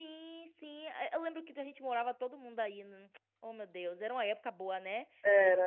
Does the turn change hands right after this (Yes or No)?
Yes